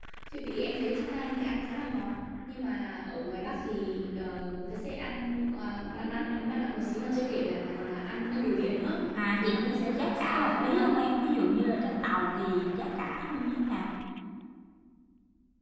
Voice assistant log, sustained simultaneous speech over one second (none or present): present